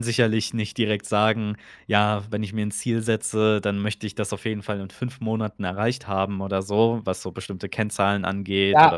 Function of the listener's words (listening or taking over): taking over